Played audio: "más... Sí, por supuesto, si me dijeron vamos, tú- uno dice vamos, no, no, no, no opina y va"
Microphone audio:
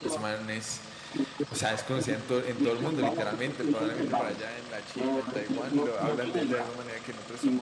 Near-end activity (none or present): present